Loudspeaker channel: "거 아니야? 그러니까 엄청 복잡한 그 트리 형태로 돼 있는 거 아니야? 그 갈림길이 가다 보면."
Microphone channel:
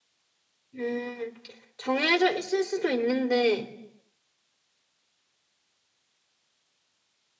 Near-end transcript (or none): 음, 정해져 있을 수도 있는데,